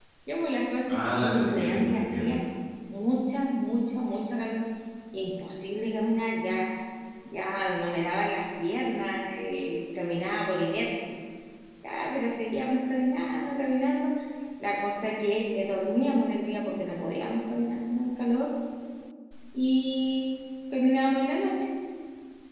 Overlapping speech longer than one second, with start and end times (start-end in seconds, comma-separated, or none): 0.9-2.4